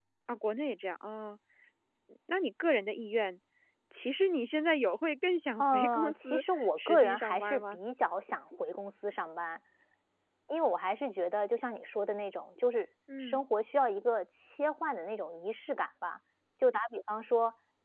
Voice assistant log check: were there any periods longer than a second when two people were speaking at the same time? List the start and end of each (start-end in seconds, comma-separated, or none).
5.6-7.8